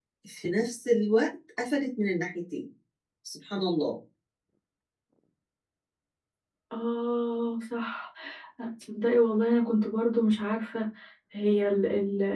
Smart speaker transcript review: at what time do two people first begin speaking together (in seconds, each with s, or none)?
none